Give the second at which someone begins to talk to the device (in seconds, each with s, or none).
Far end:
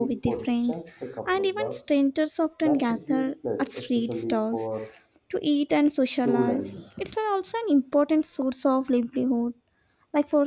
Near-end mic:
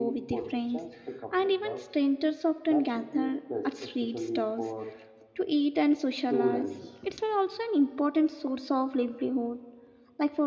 none